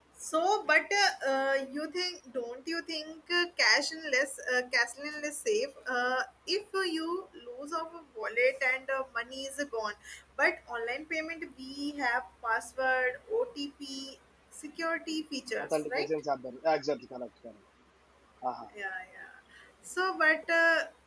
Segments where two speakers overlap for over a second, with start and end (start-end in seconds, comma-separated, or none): none